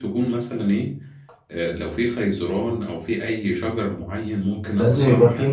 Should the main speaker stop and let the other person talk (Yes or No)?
Yes